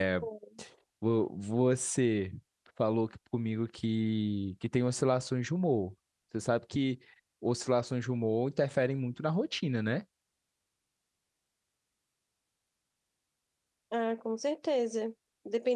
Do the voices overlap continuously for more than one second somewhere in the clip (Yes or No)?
No